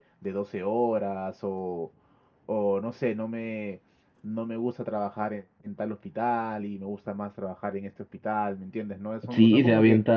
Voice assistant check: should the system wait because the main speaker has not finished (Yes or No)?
No